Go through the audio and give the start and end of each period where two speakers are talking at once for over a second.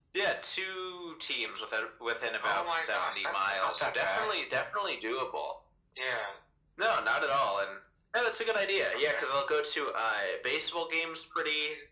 2.4-4.4

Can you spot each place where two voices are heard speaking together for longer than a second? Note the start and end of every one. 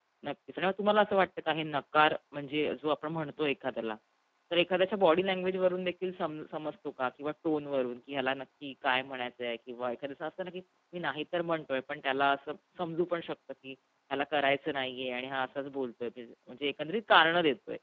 none

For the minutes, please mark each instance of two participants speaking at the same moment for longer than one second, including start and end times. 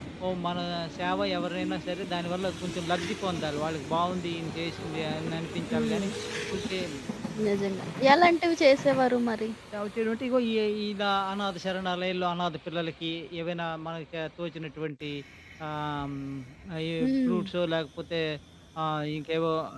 none

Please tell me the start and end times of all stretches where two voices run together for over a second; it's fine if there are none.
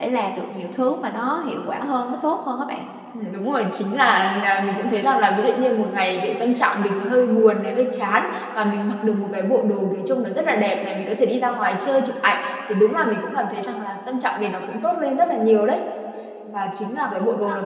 none

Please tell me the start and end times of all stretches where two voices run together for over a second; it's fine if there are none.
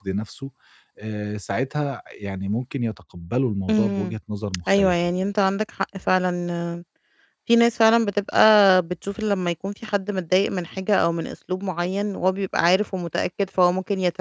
none

